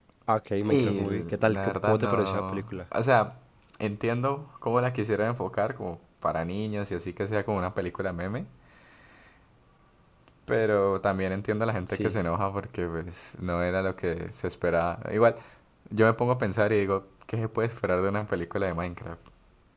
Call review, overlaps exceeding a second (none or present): present